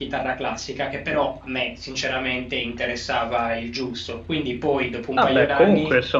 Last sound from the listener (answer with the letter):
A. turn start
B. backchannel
A